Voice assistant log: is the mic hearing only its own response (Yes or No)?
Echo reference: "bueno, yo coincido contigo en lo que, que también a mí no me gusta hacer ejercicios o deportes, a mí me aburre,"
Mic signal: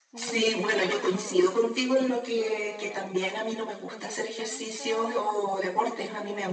No